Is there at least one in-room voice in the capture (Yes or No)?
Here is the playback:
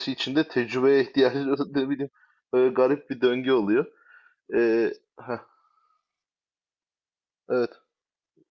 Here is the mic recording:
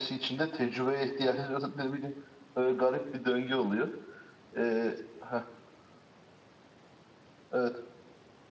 No